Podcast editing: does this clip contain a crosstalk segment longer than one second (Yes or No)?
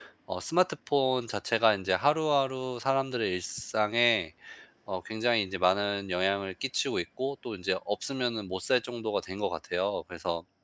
No